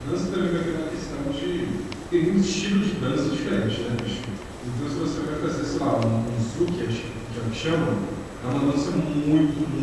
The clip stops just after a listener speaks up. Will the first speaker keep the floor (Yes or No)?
Yes